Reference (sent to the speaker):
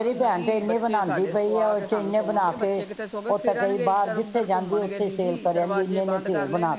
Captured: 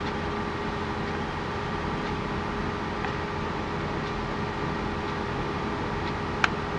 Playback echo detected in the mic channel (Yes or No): No